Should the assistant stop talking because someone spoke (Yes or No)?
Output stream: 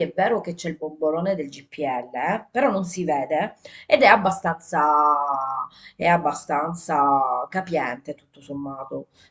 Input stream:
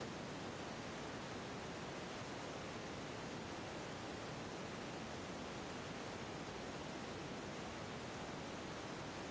No